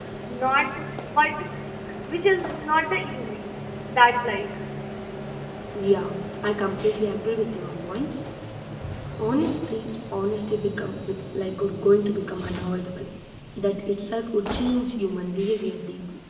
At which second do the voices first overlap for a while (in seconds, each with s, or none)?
none